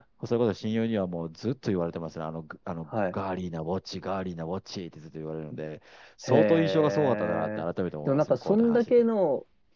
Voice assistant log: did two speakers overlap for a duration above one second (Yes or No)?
Yes